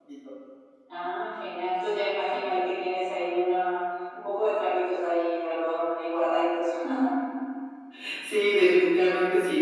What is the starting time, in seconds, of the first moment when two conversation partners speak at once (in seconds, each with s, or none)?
none